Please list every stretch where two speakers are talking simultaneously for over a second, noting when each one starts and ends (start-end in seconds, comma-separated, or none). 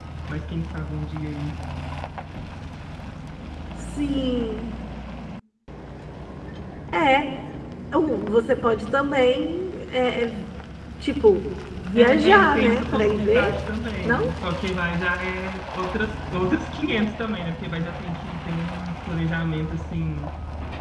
11.9-13.5